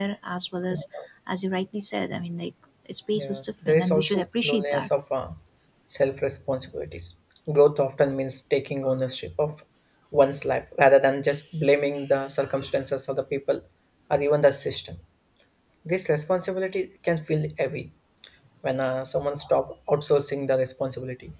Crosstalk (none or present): present